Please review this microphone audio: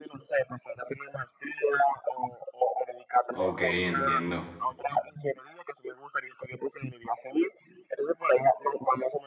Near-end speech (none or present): present